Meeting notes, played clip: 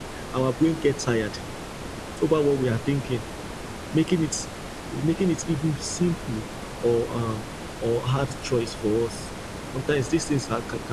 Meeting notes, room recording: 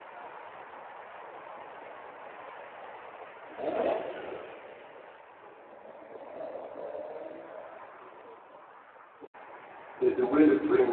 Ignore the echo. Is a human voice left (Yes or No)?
Yes